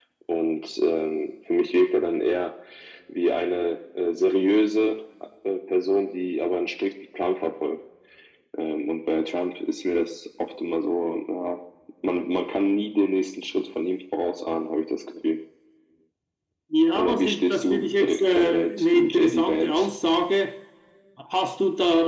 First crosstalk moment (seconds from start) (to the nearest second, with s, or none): 17 s